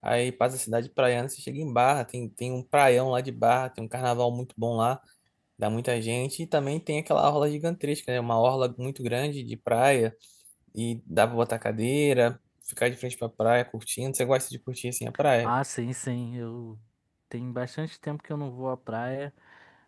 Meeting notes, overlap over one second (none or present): none